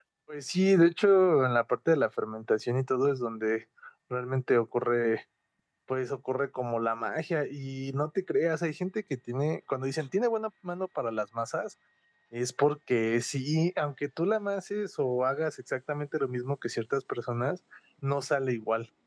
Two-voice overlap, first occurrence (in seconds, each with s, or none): none